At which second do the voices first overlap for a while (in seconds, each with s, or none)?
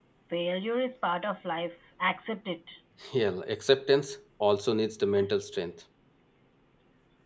none